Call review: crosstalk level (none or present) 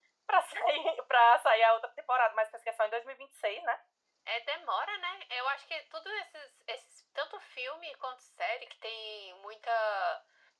none